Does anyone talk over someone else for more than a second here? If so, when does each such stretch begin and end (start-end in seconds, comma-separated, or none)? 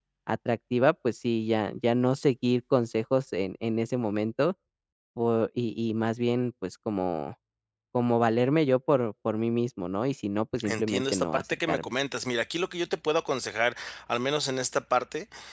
10.6-11.9